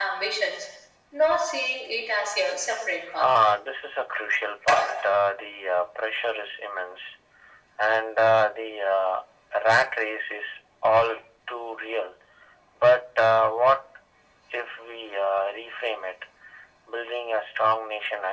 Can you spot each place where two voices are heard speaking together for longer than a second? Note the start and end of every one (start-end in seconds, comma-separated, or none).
none